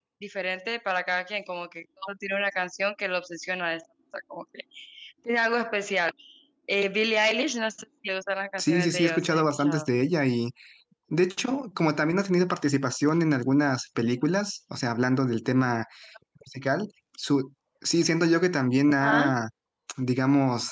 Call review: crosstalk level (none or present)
present